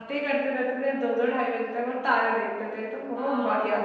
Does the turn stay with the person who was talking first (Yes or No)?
No